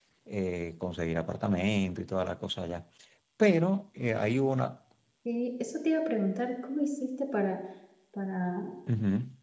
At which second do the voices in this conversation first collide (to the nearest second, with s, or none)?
none